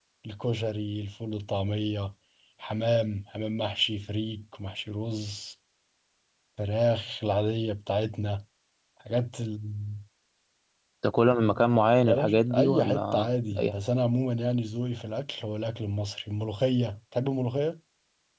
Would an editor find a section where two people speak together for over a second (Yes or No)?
Yes